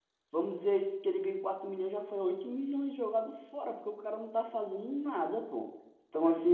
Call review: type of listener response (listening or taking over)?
listening